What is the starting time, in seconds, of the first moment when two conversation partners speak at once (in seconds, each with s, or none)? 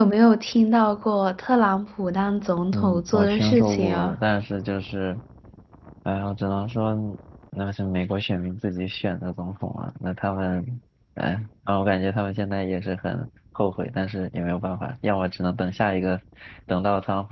2.7 s